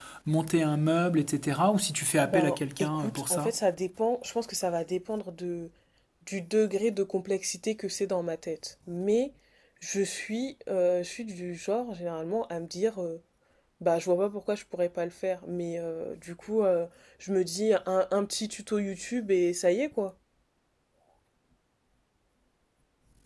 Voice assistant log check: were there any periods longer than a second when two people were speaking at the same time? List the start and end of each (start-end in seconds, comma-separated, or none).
2.3-3.5